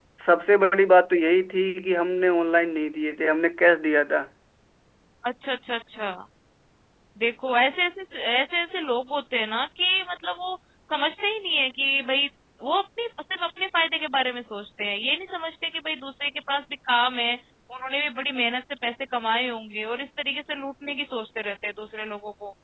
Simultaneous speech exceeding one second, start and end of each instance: none

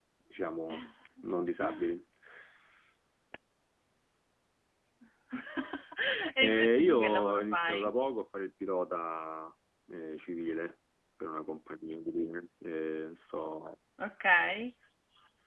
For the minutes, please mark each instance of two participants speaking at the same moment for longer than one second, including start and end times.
6.4-7.9

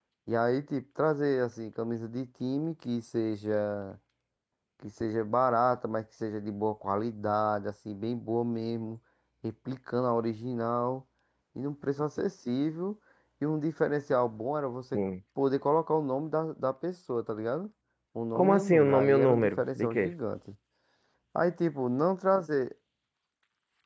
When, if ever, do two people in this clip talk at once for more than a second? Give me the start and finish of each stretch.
18.3-20.1

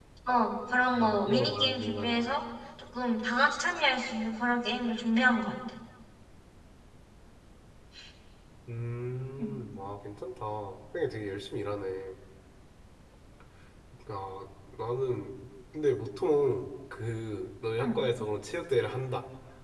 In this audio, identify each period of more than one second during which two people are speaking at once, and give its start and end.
0.9-2.4

